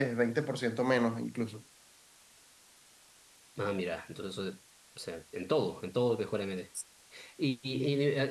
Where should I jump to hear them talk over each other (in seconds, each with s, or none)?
none